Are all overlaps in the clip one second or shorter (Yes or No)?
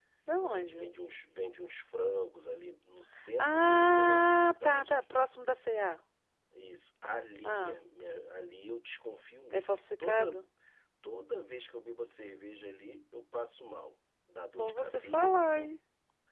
No